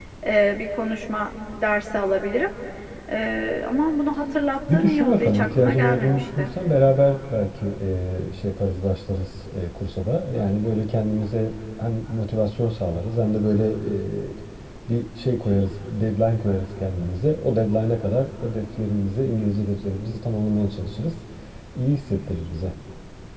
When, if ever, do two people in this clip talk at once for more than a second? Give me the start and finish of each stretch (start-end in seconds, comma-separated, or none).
4.7-6.5